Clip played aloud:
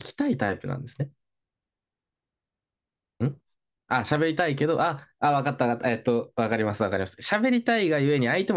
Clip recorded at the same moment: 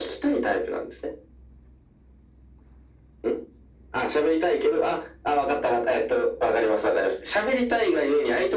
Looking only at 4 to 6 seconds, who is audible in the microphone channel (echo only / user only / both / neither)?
echo only